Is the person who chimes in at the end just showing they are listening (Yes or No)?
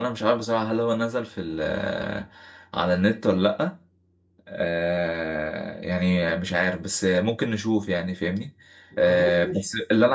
Yes